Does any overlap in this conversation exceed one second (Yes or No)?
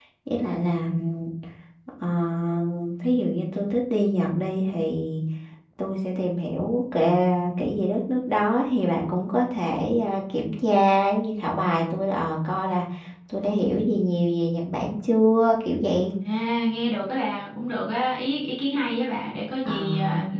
No